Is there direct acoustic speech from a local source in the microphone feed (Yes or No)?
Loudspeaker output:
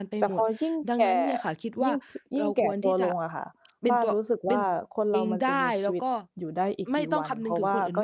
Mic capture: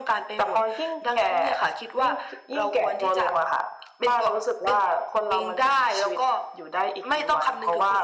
No